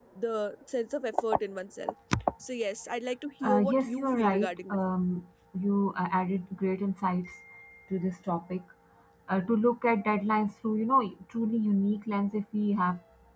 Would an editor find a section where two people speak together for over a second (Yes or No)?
Yes